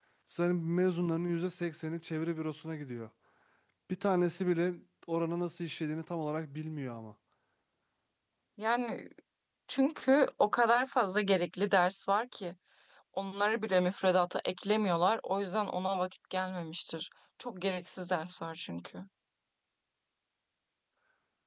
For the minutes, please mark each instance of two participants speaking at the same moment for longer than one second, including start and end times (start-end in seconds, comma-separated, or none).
none